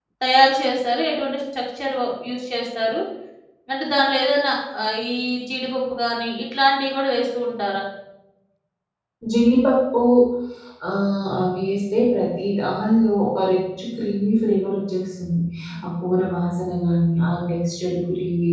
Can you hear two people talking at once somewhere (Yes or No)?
No